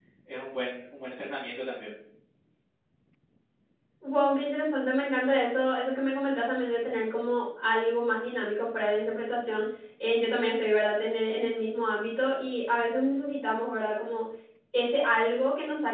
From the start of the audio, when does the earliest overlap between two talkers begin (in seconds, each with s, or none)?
none